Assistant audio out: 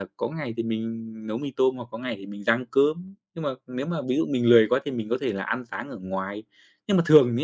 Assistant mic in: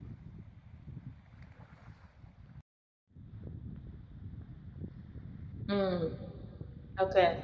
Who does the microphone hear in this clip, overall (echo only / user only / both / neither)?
user only